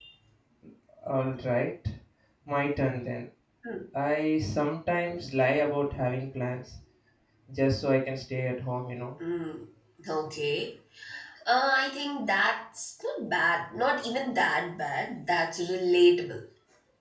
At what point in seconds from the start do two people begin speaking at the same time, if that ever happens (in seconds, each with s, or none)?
none